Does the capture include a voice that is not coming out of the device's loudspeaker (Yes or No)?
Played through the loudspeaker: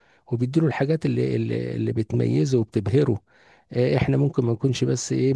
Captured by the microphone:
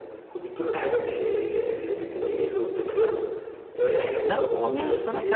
Yes